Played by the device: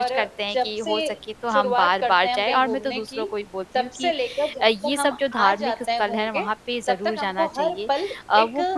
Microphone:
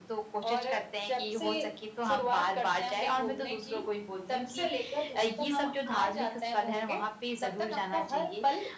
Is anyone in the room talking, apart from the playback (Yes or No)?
No